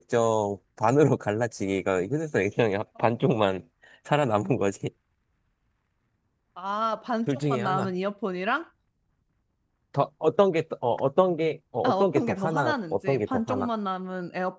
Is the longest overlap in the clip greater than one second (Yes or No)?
Yes